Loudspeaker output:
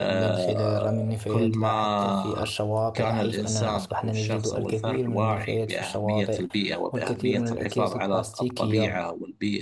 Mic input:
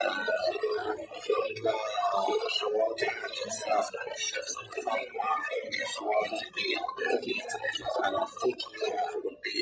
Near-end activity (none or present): none